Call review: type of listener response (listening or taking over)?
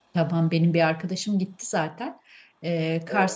listening